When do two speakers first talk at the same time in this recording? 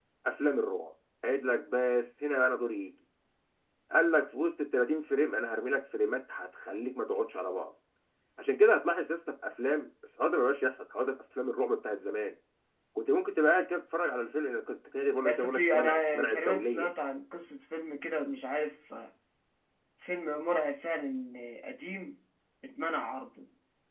15 s

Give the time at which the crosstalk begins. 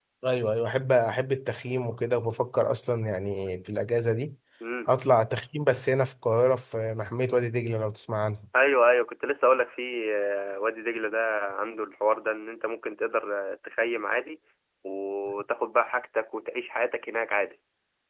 none

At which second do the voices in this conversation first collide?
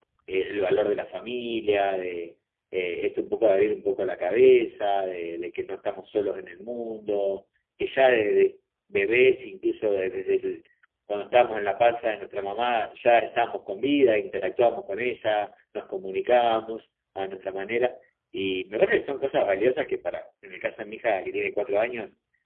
none

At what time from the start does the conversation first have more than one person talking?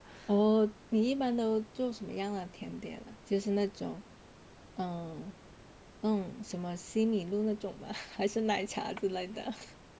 none

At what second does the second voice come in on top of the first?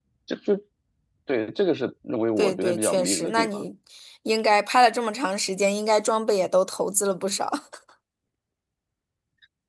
2 s

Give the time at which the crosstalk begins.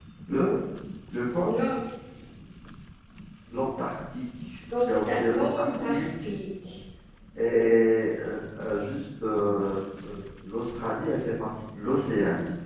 5 s

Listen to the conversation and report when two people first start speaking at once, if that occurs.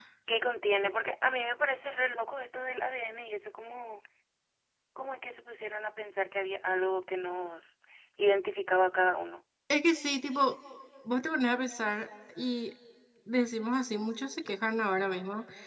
none

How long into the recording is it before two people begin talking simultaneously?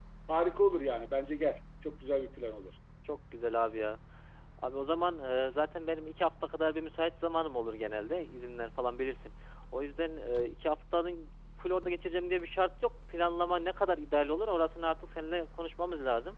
none

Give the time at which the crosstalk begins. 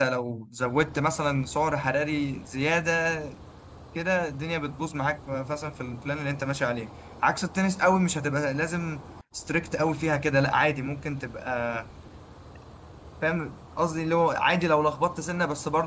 none

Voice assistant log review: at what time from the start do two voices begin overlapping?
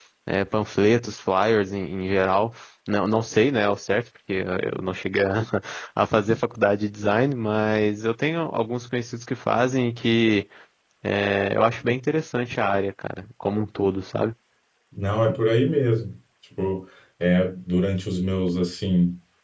none

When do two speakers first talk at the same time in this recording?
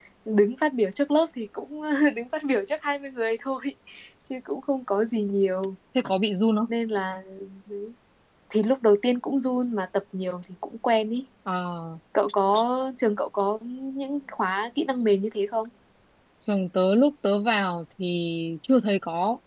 none

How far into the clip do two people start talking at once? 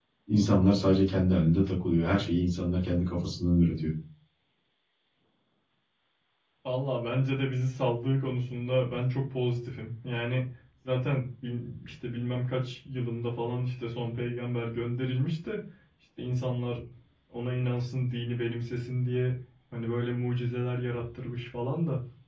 none

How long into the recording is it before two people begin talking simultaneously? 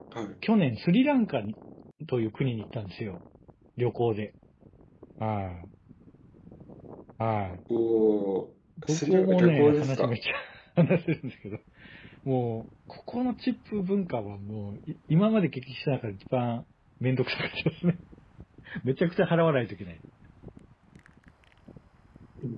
9 s

